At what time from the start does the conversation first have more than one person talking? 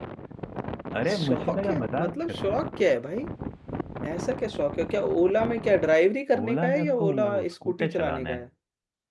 1.1 s

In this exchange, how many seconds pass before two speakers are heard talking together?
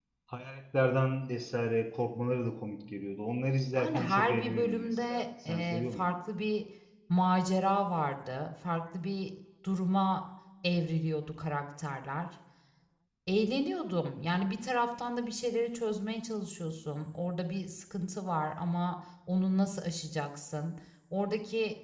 3.8 s

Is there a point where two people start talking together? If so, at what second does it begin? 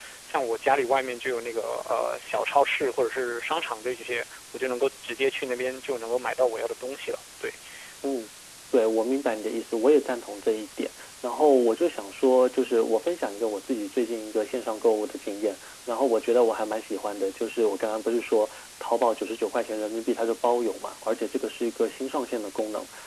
none

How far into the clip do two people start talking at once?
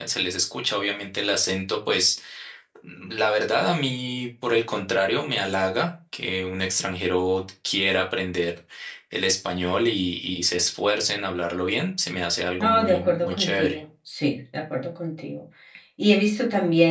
12.6 s

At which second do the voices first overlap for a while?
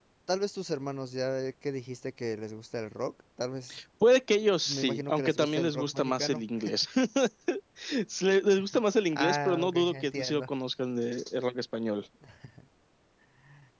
4.7 s

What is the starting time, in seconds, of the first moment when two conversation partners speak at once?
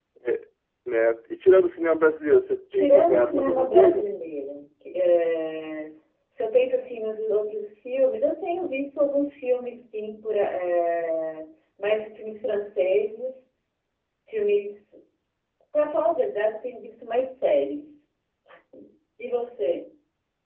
2.7 s

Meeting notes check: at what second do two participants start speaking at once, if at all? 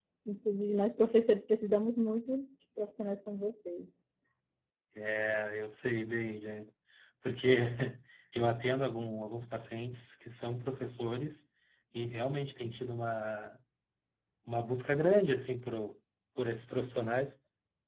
none

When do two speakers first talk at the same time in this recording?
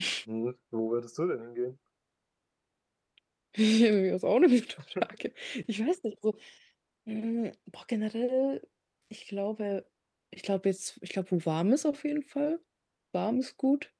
none

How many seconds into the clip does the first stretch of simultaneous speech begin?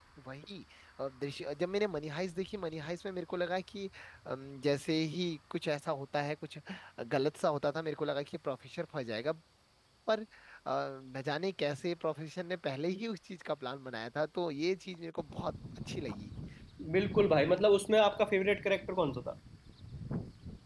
none

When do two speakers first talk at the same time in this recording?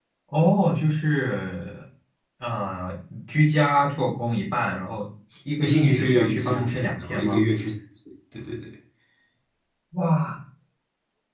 5.6 s

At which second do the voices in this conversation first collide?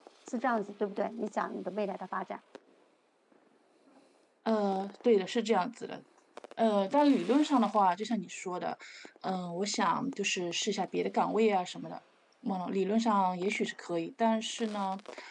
none

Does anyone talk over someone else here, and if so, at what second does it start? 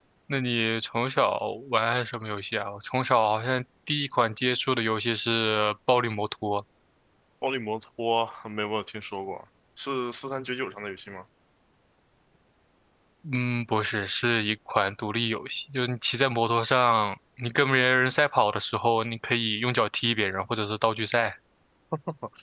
none

